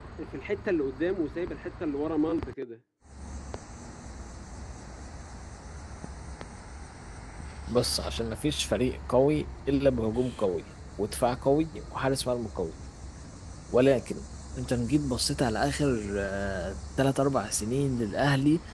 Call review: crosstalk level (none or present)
none